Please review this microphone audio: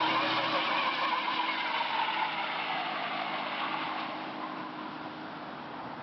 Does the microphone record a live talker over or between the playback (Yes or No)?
No